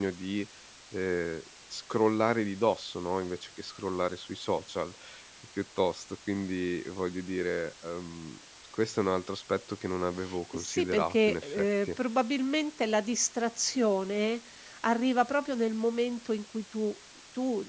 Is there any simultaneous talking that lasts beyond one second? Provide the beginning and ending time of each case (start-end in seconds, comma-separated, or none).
10.5-11.9